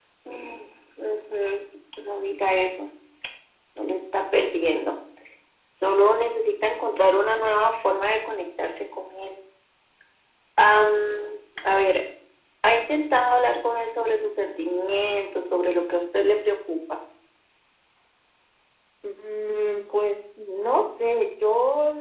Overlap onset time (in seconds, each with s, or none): none